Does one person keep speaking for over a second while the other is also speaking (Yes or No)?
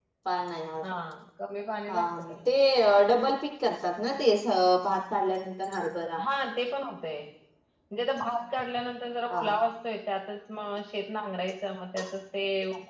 No